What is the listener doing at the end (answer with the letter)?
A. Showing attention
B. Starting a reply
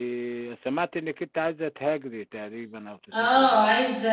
B